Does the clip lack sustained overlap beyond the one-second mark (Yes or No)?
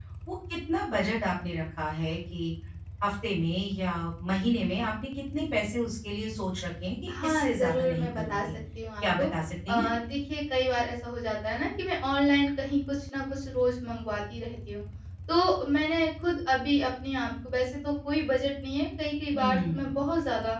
No